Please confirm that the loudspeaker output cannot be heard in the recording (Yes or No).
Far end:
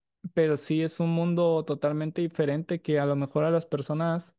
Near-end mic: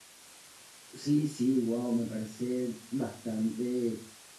Yes